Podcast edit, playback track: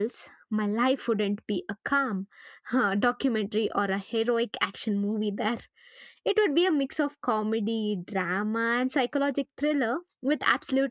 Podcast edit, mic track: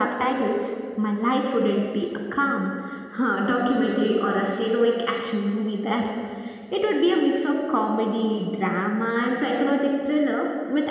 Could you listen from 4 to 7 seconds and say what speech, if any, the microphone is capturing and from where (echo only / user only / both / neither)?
echo only